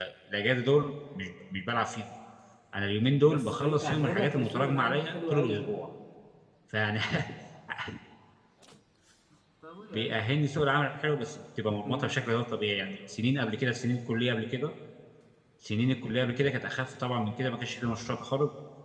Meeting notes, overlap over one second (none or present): present